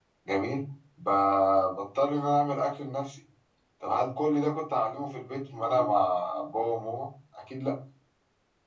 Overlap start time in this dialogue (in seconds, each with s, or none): none